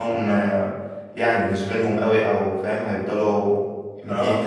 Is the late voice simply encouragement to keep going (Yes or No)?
Yes